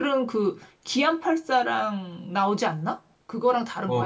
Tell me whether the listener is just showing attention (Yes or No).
No